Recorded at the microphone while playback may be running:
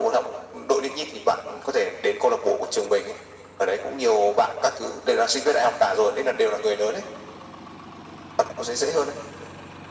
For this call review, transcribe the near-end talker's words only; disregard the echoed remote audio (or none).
none